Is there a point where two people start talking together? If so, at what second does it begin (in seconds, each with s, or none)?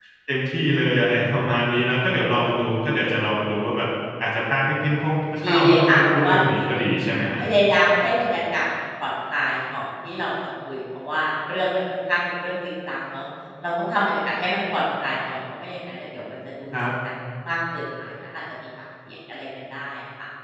5.4 s